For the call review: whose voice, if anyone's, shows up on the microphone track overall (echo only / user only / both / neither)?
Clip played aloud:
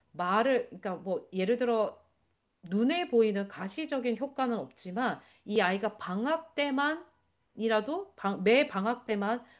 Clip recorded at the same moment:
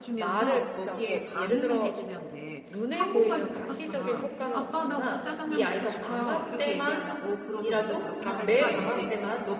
both